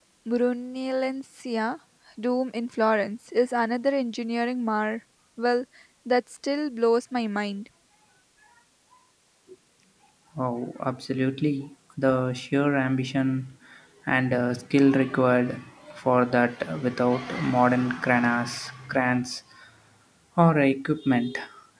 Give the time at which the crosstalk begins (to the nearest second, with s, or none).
none